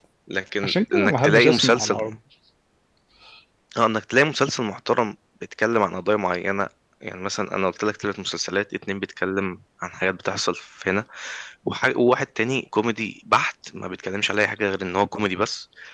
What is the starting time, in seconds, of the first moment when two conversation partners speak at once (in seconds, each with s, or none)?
0.6 s